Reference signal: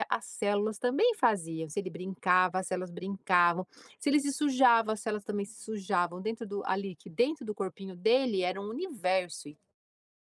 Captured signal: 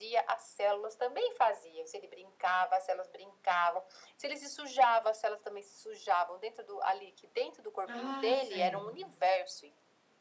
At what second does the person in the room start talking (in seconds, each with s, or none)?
7.8 s